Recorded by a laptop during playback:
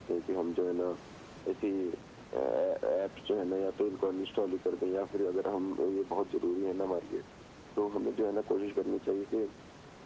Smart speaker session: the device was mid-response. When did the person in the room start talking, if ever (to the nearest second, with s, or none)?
none